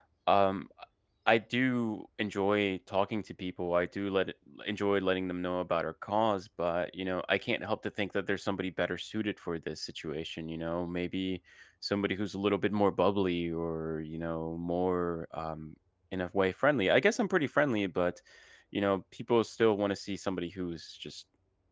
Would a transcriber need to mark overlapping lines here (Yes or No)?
No